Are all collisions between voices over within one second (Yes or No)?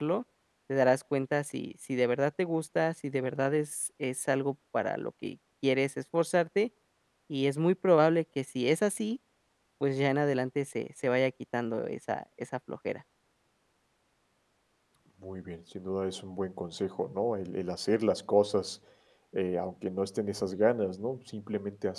Yes